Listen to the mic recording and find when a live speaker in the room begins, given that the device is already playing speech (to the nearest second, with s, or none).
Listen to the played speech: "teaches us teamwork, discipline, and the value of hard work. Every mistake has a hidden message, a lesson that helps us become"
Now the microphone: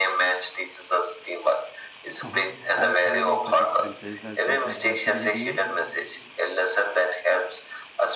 2 s